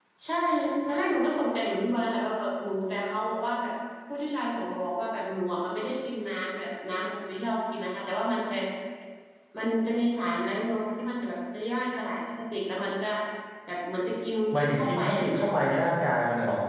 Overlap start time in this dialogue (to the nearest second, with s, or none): 15 s